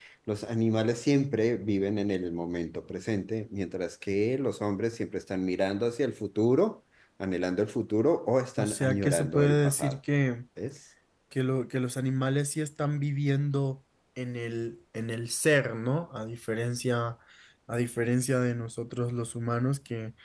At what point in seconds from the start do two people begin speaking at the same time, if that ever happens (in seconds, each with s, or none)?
8.6 s